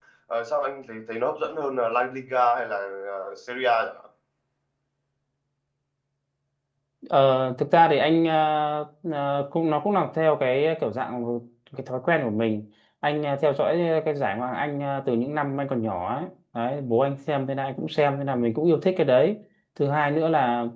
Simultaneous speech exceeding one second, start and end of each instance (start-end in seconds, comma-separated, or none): none